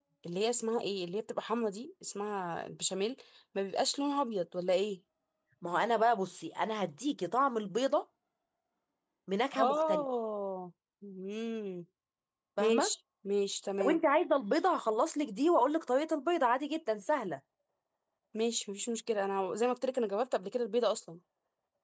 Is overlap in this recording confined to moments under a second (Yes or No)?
Yes